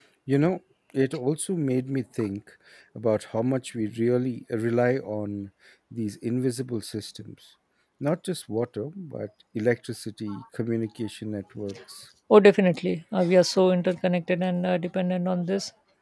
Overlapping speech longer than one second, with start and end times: none

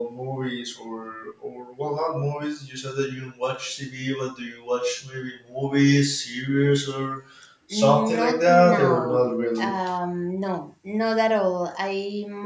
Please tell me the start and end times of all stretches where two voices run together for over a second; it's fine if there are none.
7.7-9.8

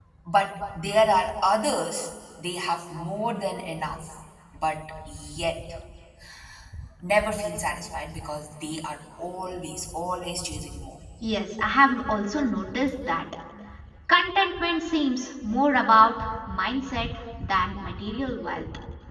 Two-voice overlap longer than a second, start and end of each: none

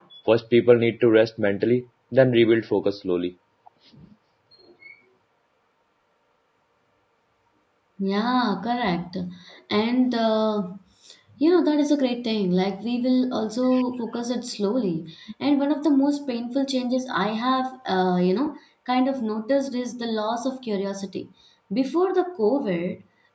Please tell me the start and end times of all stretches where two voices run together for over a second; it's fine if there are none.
none

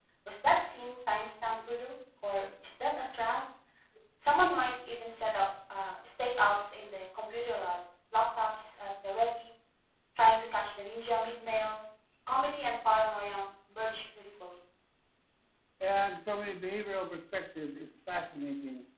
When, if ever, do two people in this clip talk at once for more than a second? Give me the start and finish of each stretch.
none

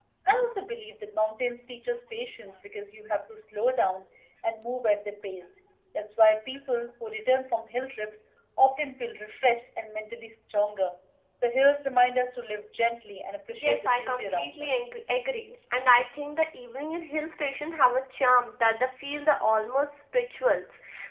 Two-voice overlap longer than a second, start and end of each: 13.6-14.9

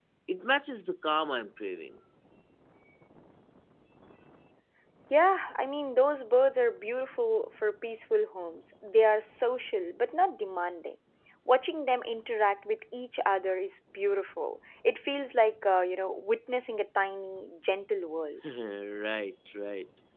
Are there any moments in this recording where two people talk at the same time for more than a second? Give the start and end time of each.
none

